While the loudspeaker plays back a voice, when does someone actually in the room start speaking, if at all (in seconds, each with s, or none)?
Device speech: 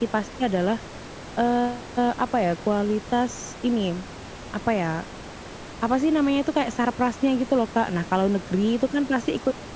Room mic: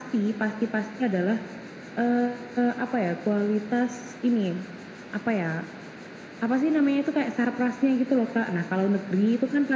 none